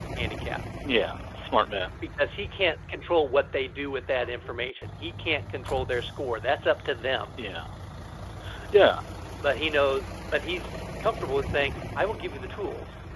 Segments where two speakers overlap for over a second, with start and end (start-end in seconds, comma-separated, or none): none